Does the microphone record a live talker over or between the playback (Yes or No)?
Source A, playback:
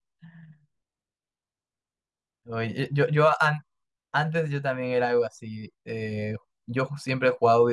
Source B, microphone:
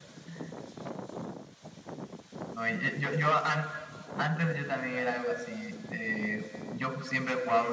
No